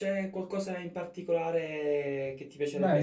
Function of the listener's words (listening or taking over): taking over